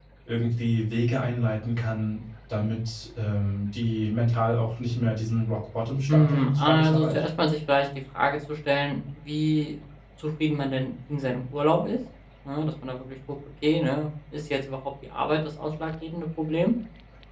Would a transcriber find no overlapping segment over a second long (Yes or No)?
No